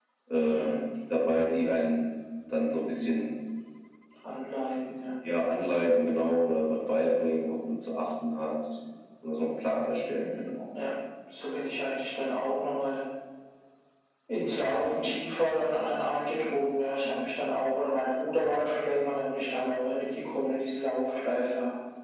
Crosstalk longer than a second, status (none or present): none